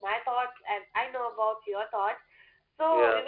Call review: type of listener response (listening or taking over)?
listening